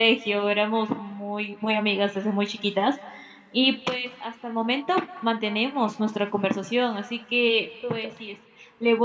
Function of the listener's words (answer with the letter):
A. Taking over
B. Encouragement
B